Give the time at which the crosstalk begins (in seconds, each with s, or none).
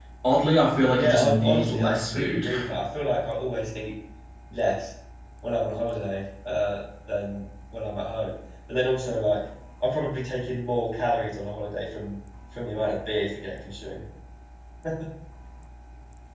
0.9 s